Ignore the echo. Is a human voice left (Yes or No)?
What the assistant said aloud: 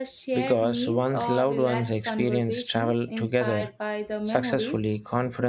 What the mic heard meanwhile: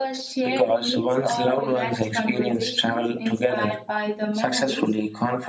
No